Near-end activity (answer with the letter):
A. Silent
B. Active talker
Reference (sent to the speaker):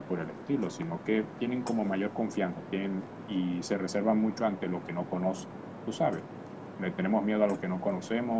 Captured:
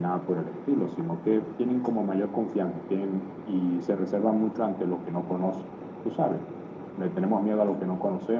A